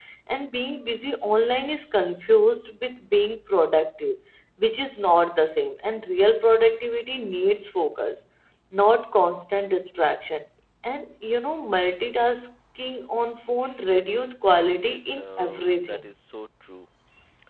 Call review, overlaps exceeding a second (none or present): present